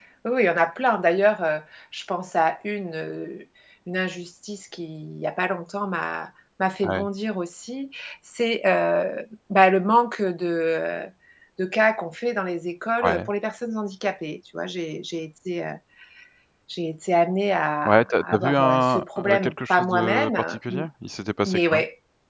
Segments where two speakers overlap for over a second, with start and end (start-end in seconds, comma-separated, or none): 17.9-20.8